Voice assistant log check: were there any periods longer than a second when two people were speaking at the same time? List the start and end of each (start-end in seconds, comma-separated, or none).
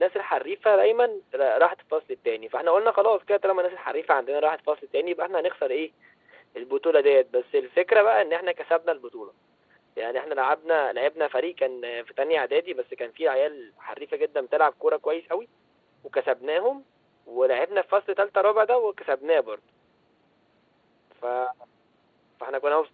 none